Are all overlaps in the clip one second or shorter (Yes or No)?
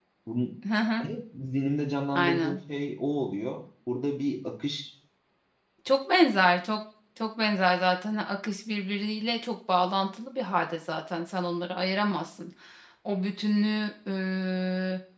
Yes